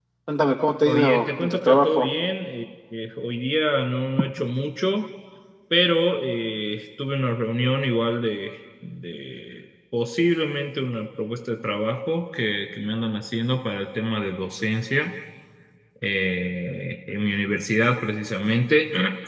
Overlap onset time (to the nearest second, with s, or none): 1 s